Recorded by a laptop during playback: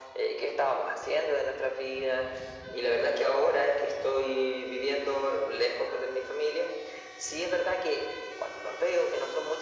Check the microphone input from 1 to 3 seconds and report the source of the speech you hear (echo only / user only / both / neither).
echo only